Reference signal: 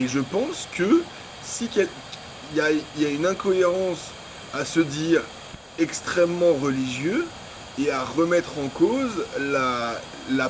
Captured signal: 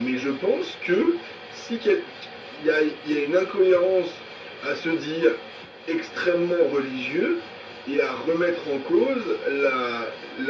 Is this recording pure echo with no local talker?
Yes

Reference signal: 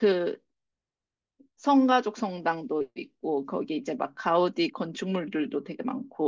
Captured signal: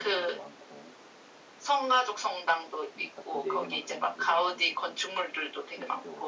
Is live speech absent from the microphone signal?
No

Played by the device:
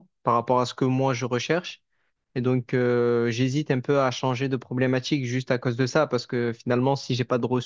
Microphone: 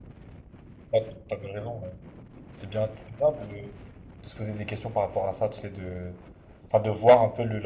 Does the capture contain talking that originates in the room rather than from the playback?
Yes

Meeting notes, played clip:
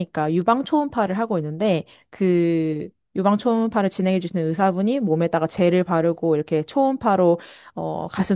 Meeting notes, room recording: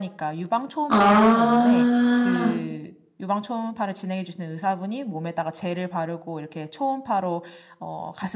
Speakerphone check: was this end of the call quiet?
No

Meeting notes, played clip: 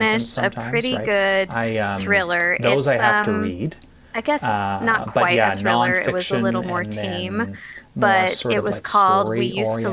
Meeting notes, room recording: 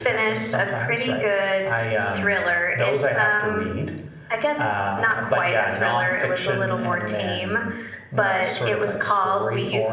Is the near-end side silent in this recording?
Yes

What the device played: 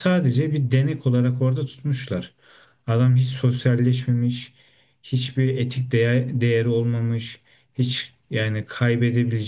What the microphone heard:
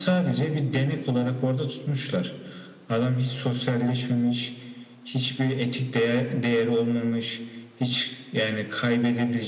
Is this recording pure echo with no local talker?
Yes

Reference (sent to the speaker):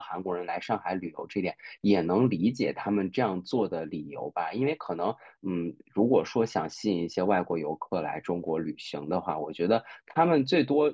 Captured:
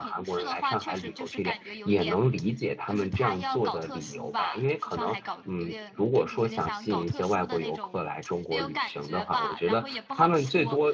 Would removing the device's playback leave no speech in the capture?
No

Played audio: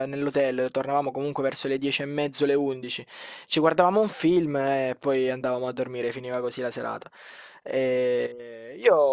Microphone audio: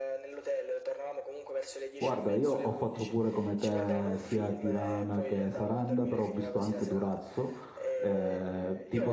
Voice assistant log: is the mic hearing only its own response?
No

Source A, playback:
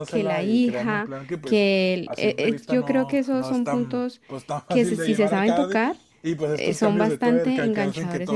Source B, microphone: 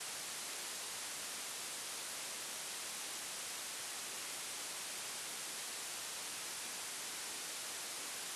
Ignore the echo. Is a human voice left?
No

